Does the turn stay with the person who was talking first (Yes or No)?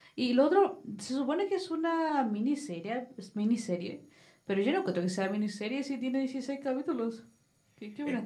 No